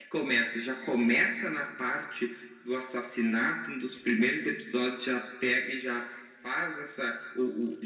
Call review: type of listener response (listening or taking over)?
listening